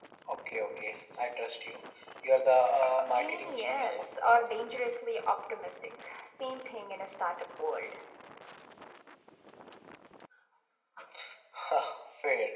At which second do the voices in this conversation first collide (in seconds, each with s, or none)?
3.1 s